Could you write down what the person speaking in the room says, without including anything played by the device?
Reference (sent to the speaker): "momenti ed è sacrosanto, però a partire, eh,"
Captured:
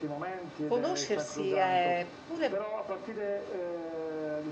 conoscersi è pure

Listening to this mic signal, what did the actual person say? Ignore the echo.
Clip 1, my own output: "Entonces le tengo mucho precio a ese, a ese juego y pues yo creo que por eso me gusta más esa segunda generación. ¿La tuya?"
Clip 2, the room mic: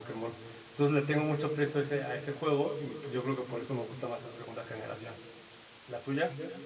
none

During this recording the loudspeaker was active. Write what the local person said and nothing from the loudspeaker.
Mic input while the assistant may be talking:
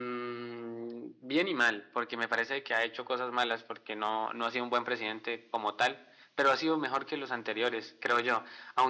none

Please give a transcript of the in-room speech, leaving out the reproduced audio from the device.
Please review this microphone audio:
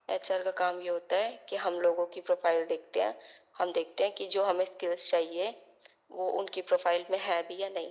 none

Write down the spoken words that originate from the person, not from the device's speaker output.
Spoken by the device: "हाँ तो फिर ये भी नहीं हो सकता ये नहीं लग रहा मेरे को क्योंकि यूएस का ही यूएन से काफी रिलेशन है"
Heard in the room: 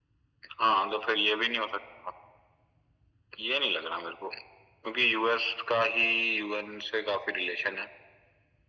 none

